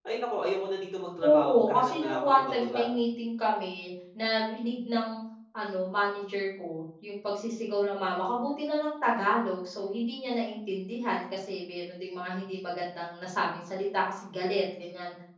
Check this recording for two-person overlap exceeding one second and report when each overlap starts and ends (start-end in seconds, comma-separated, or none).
1.2-2.9